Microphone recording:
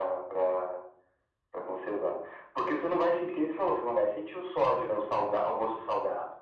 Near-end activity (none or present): none